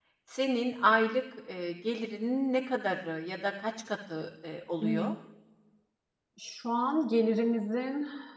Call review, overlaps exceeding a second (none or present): none